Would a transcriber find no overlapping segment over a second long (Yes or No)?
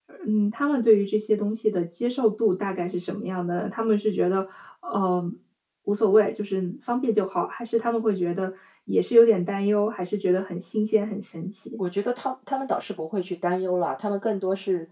Yes